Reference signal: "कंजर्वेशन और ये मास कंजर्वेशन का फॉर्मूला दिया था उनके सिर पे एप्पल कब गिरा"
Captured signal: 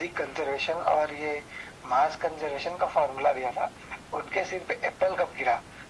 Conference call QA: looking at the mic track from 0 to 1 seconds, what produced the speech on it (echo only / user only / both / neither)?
echo only